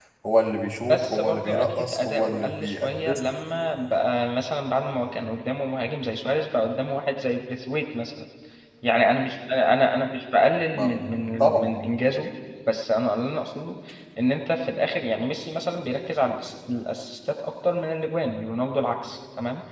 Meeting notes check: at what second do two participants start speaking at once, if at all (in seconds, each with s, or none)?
0.9 s